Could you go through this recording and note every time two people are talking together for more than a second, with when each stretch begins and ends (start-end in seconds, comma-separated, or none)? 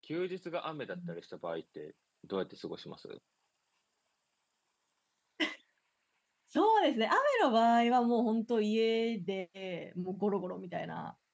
none